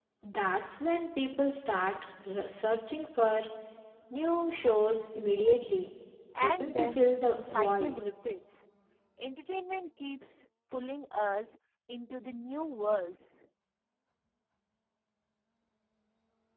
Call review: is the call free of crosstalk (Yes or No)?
No